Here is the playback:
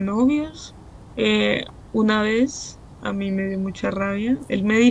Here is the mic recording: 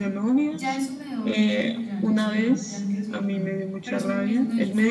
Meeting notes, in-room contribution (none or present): present